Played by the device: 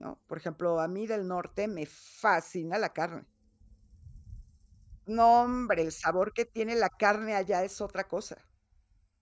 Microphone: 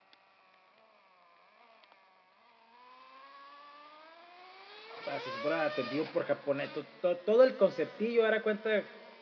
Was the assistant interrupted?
Yes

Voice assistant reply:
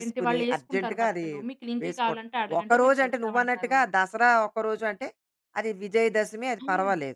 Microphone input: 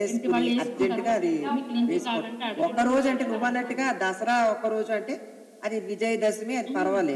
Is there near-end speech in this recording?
Yes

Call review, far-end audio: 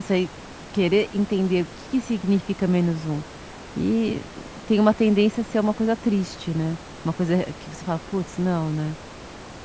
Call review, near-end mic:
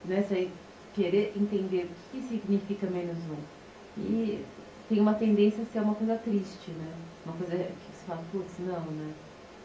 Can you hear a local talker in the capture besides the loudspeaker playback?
No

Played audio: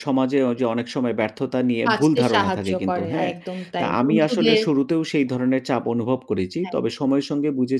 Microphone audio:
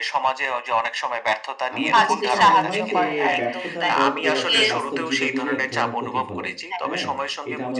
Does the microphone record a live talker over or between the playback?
Yes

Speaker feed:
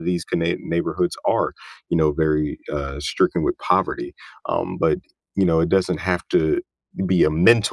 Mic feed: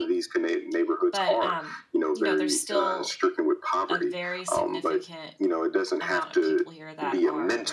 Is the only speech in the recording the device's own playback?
No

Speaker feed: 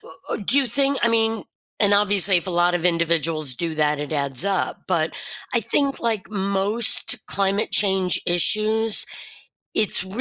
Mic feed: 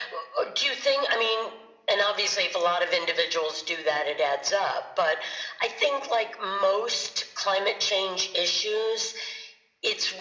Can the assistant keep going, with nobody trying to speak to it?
Yes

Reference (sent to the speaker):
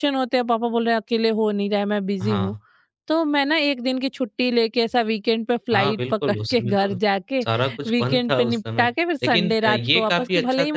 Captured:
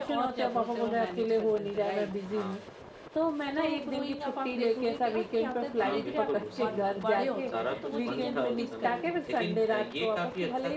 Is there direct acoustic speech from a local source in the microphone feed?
Yes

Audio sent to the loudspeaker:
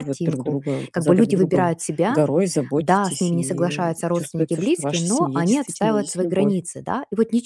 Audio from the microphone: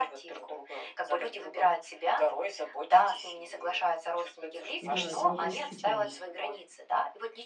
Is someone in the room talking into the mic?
Yes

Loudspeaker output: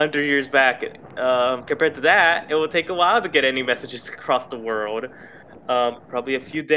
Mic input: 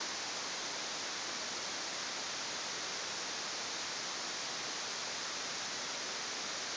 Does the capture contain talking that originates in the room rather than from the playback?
No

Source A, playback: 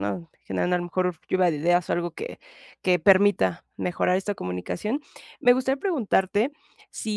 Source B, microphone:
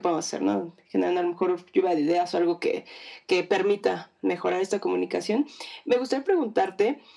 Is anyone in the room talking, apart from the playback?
No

